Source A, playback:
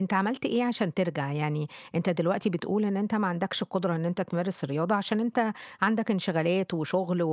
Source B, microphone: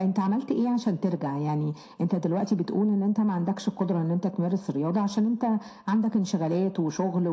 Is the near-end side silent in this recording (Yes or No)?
Yes